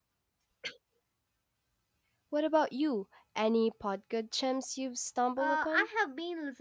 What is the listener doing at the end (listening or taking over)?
taking over